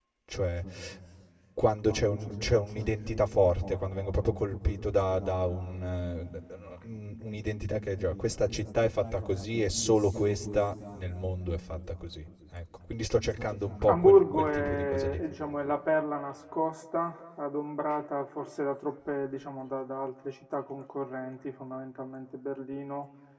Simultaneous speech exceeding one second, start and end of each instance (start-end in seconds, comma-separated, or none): 13.9-15.2